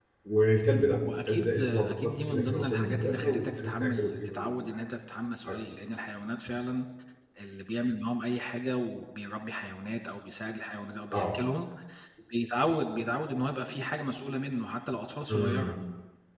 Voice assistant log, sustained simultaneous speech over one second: present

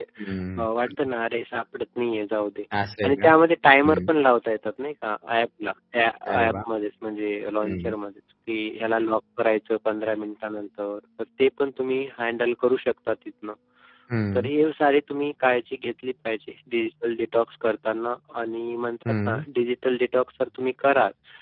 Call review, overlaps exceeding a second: none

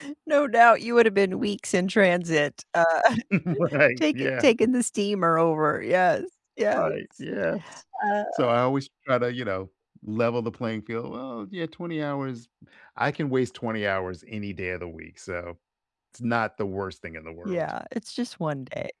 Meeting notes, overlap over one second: none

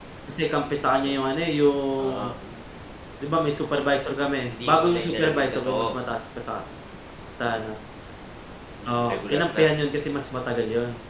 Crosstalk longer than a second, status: present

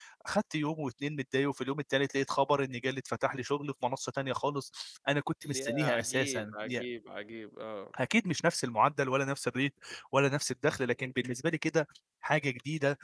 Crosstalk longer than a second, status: present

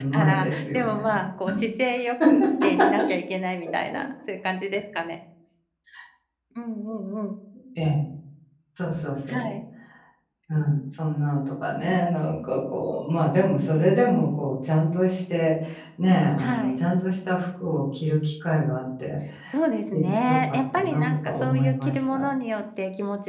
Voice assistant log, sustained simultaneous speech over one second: present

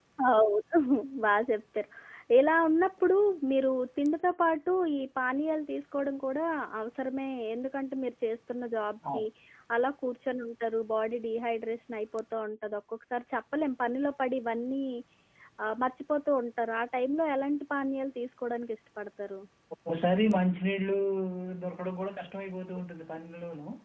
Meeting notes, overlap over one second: none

